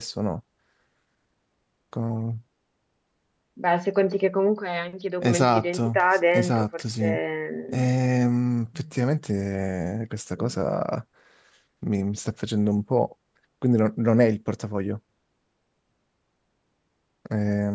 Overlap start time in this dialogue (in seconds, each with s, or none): 5.2 s